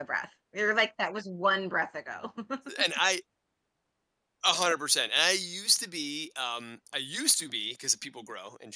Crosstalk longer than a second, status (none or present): none